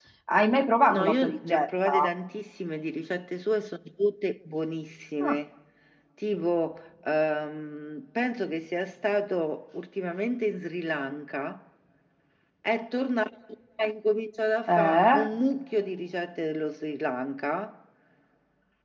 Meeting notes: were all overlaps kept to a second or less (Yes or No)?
No